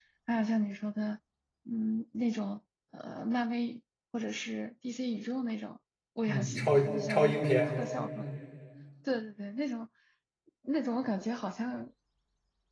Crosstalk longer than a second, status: present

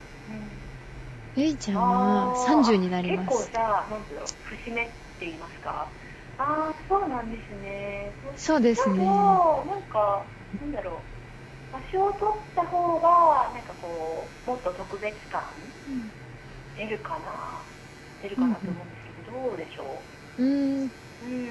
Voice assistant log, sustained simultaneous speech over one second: present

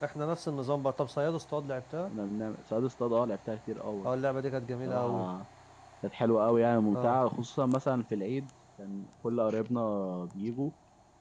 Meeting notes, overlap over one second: none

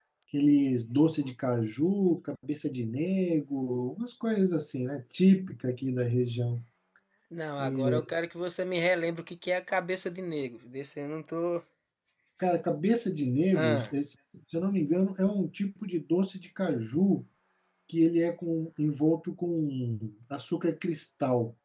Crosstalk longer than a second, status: none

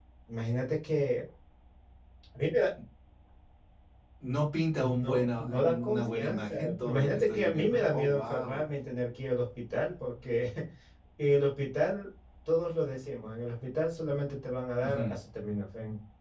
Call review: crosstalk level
present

